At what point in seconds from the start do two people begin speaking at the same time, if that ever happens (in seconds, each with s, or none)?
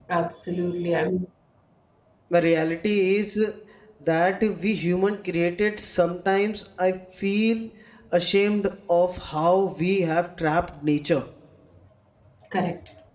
none